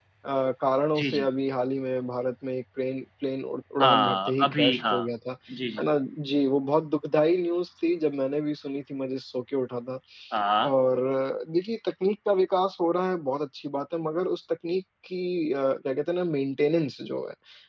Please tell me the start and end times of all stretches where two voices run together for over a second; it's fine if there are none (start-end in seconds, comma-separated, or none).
3.8-5.1